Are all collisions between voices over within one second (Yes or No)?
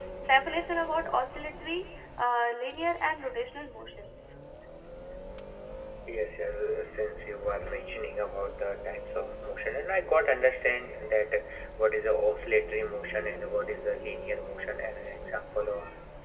Yes